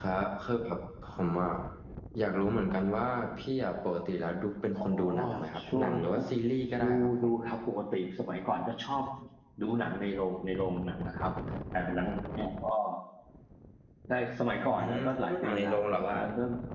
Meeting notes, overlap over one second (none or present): present